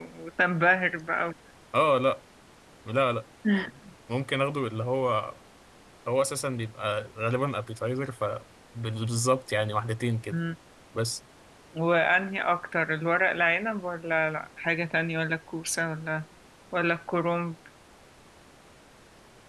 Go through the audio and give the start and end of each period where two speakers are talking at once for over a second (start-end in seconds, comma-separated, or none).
none